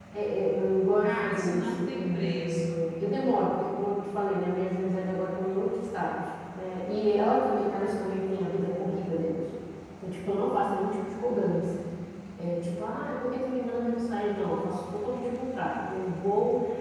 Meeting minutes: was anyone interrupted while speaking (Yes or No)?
Yes